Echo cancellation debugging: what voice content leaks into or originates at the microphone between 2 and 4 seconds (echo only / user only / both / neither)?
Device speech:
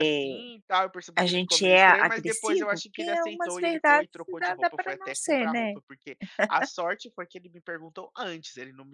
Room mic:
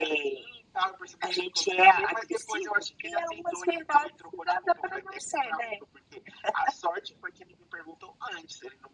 echo only